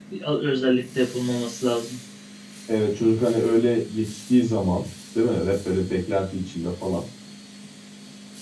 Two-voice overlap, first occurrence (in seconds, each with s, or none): none